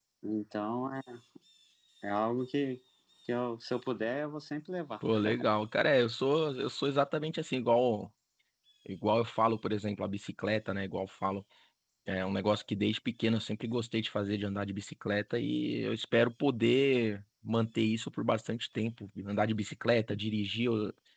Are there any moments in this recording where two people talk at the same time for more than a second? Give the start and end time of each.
none

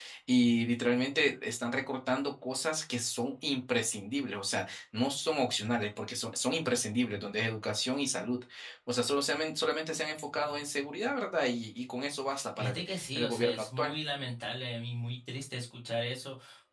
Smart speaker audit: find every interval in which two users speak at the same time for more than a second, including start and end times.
12.6-13.9

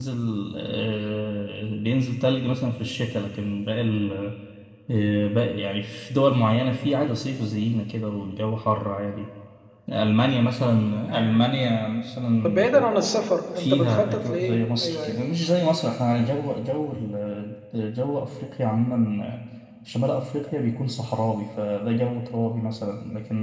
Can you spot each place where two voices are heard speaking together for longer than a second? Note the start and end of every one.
13.5-15.6

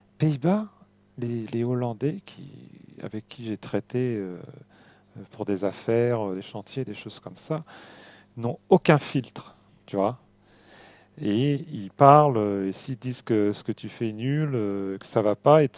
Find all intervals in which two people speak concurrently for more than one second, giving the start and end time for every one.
none

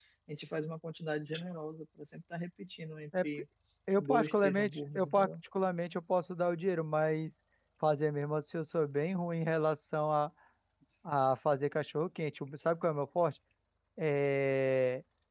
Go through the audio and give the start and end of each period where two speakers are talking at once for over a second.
4.0-5.3

